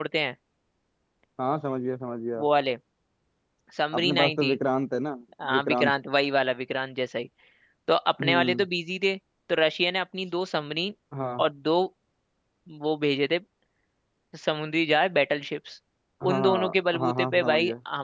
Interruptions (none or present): present